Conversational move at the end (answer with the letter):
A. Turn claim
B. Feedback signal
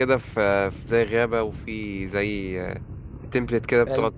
A